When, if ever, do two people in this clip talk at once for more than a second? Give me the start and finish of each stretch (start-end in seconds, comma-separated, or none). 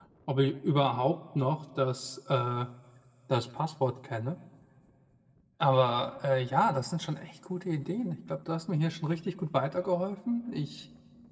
none